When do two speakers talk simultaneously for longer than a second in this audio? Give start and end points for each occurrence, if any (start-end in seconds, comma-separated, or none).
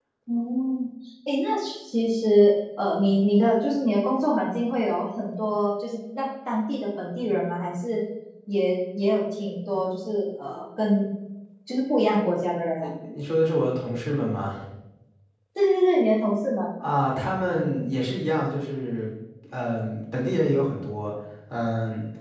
none